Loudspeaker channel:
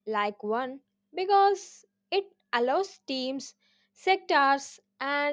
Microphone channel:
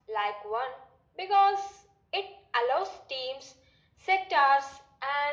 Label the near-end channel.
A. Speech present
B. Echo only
B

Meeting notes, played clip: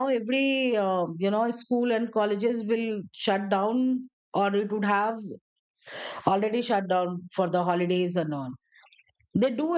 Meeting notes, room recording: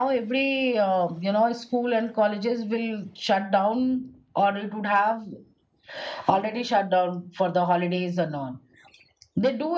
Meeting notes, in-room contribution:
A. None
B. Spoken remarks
A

